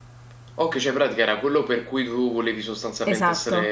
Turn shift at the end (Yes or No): Yes